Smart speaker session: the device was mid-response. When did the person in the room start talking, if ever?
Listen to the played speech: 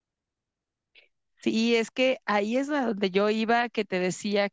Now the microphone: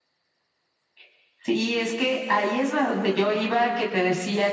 none

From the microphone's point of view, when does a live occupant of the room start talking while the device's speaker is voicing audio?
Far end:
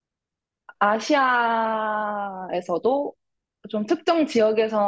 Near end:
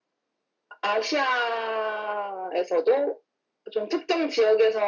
none

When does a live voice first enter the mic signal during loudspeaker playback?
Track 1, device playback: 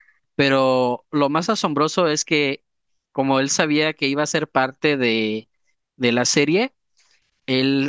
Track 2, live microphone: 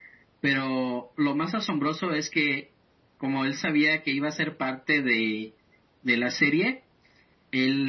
none

